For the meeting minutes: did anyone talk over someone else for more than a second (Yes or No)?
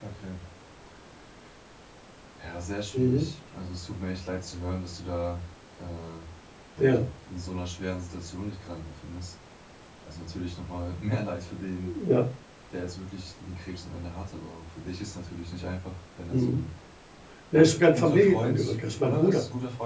Yes